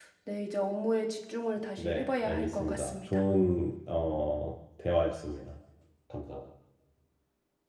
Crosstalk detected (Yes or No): Yes